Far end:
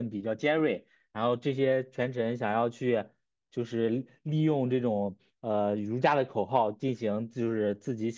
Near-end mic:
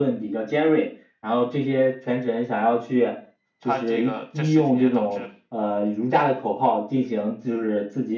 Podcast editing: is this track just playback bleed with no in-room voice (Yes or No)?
No